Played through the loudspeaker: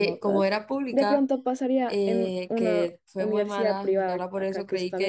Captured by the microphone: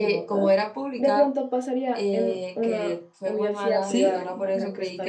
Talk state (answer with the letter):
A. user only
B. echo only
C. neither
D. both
D